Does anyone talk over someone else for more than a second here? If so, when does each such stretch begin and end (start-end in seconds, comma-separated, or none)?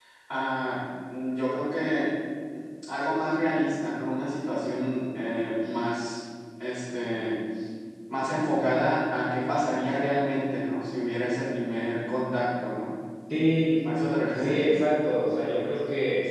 none